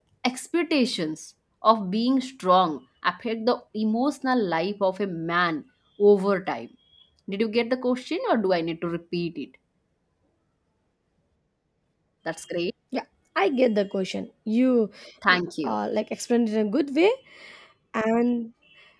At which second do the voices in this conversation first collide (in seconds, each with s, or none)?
none